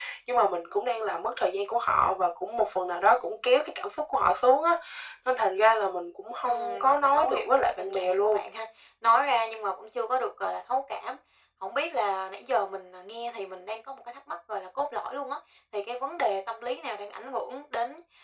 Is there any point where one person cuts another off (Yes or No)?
Yes